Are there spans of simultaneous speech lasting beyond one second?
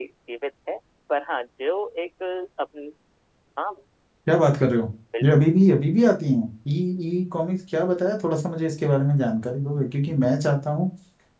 No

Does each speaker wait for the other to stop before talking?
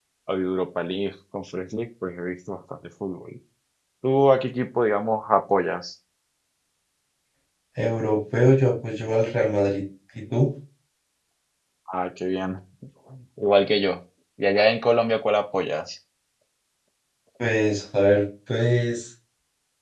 Yes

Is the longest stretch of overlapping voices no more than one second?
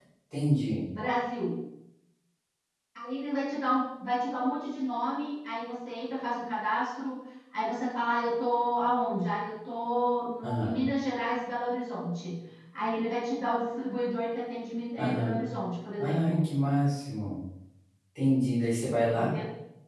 Yes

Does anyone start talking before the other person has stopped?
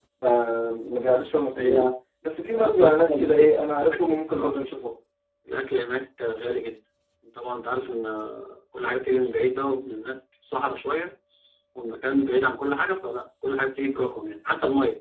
Yes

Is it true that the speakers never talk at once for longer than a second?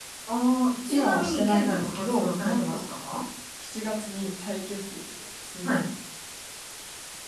No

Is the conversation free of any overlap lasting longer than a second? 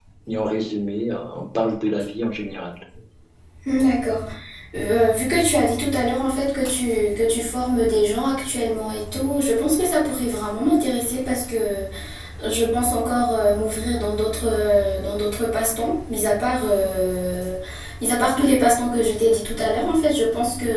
Yes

